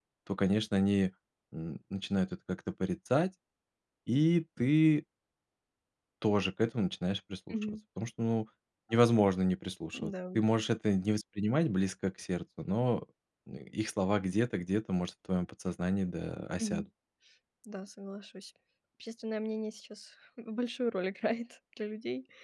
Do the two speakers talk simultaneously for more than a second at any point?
No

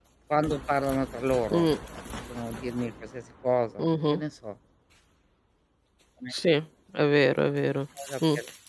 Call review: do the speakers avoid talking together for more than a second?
Yes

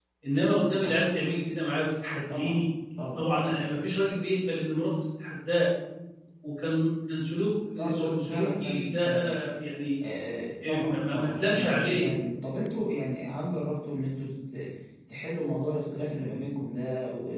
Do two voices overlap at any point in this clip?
Yes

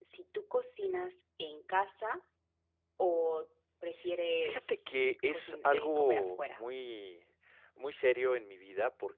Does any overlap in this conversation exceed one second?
Yes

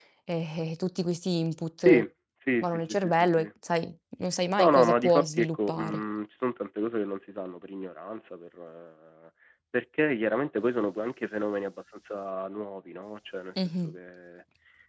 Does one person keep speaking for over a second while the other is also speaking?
Yes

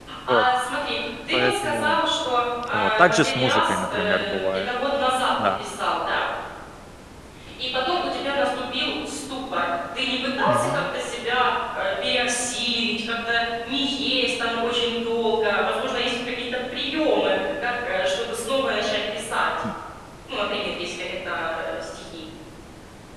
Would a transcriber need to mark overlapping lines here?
Yes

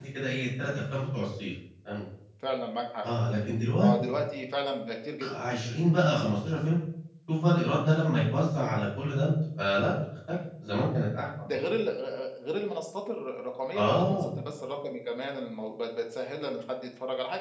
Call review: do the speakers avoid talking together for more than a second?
Yes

